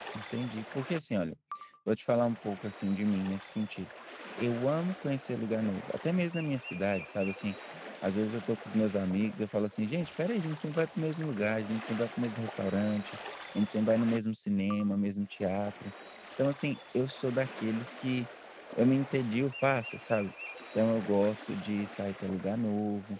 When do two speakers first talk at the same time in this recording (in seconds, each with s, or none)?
none